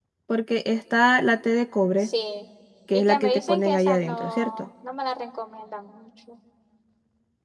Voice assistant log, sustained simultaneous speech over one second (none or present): present